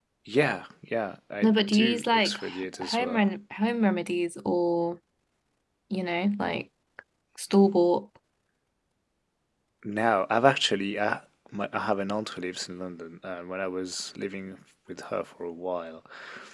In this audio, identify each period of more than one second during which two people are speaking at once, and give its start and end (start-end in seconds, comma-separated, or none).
1.4-3.2